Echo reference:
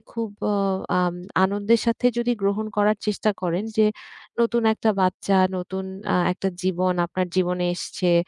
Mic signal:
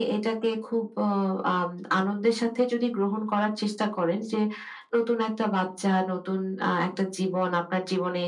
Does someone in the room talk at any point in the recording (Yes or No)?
No